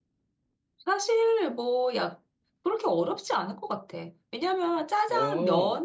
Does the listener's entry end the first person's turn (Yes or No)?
No